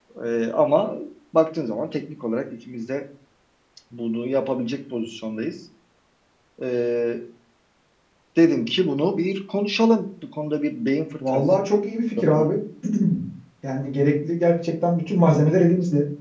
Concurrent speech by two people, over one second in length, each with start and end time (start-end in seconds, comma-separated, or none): none